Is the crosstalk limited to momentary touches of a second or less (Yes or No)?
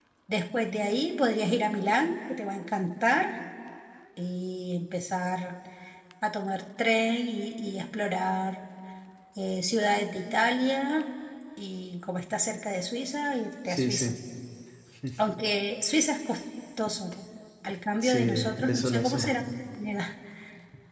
No